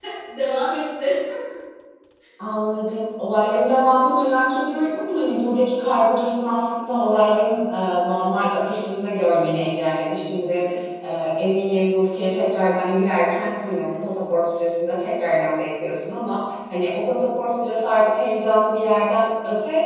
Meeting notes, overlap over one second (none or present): none